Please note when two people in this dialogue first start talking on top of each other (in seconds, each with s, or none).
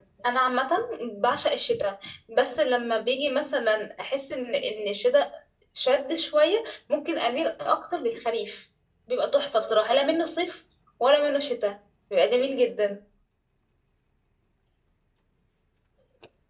none